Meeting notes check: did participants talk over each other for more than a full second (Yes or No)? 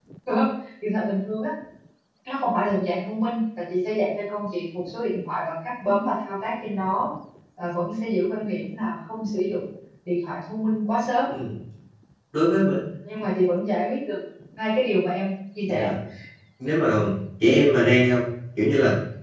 No